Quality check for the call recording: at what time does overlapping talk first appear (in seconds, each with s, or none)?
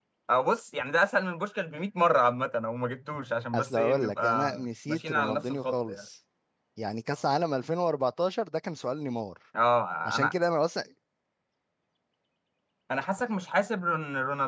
3.5 s